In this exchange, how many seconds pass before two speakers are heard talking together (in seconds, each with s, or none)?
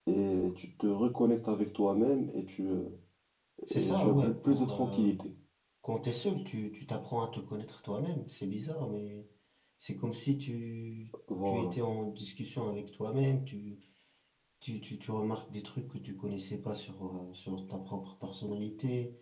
3.7 s